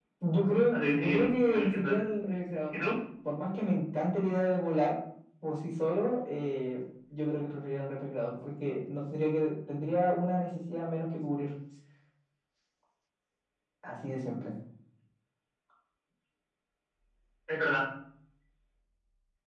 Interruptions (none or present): present